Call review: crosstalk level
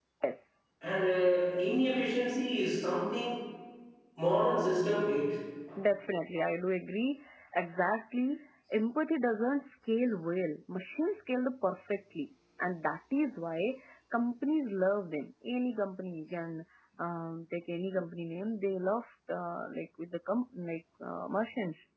none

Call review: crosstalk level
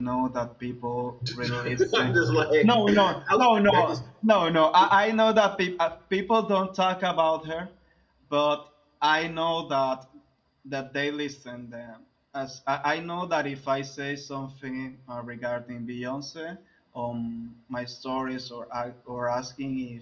present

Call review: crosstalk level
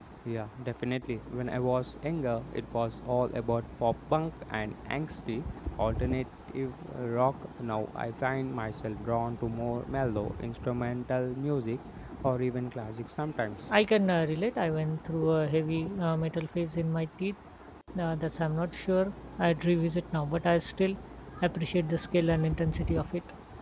none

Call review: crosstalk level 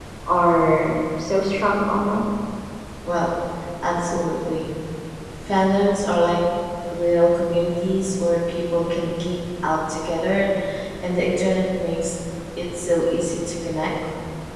none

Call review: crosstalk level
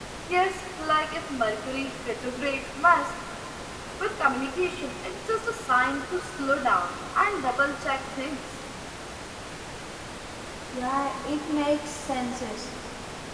none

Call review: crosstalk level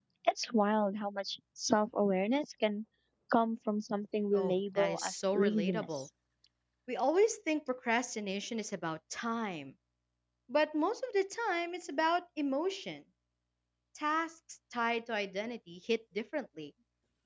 present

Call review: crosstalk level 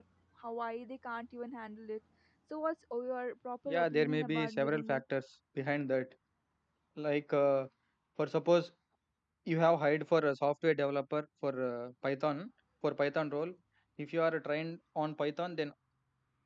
present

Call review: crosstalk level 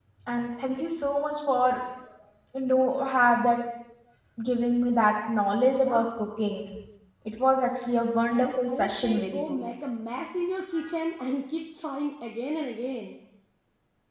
present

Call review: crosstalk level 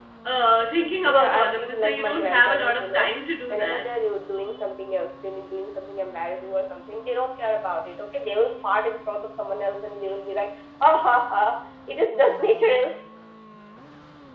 present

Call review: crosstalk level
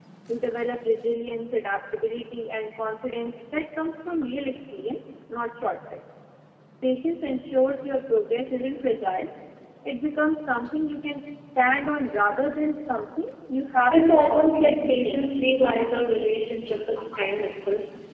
present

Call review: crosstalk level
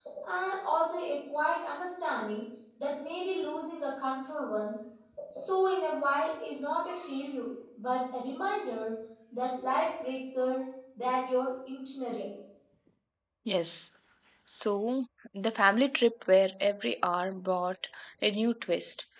none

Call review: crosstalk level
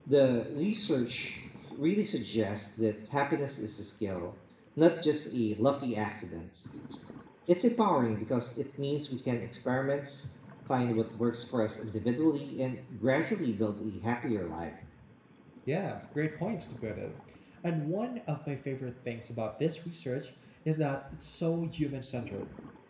none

